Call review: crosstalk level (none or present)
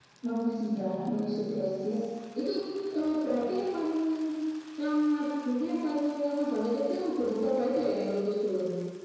none